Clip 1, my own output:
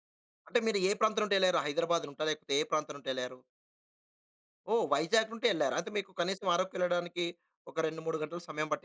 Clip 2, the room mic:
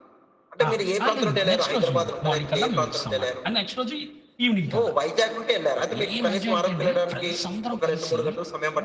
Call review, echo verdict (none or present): present